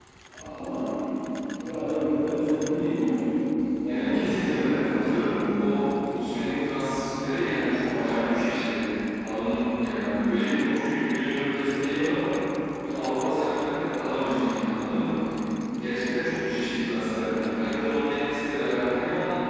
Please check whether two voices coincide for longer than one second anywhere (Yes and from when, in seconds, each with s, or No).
Yes, from 3.9 s